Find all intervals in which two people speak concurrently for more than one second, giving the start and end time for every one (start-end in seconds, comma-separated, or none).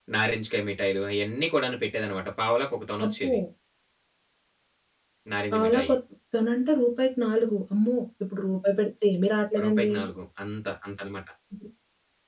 none